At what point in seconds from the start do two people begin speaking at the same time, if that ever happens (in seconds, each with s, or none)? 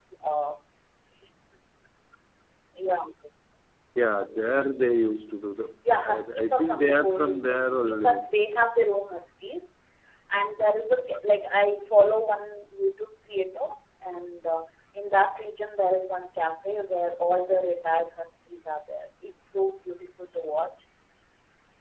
6.0 s